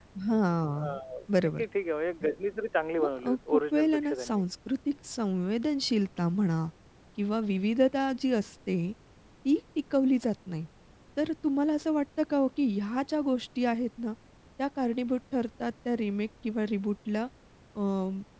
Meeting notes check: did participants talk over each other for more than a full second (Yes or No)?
Yes